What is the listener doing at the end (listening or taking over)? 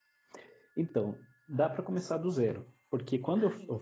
listening